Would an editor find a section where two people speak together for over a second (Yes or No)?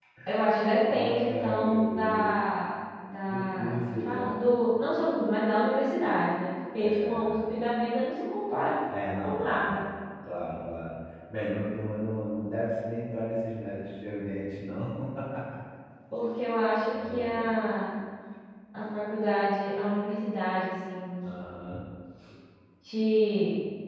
Yes